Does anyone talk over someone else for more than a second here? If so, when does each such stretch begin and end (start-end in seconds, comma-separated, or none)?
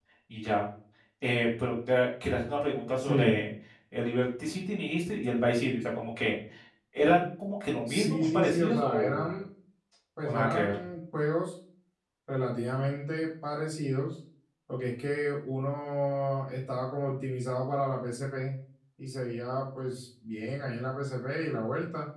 7.8-9.3